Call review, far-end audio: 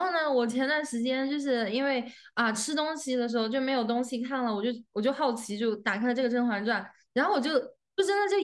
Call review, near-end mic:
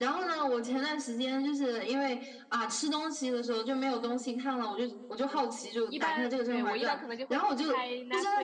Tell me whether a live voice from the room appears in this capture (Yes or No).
Yes